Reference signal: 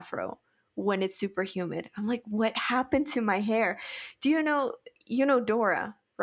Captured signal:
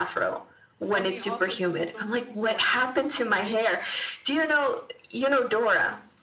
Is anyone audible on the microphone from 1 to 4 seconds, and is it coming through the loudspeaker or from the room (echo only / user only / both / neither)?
both